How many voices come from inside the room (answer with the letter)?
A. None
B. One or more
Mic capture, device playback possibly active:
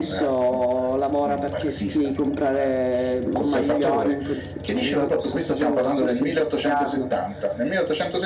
B